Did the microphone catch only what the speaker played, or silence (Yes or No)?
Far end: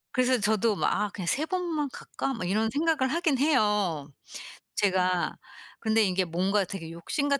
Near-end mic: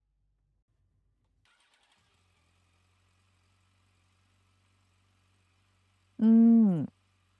No